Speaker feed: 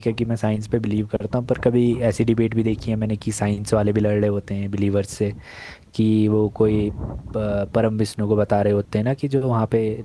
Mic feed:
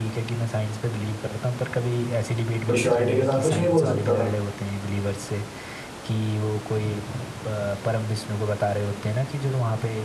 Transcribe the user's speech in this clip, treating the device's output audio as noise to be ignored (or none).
कोई श्योरिटी के साथ कुछ नहीं बोल सकता था